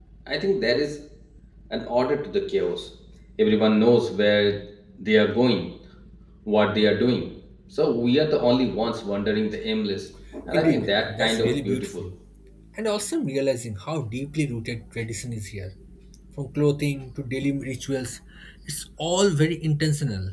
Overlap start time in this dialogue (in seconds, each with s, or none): 10.5 s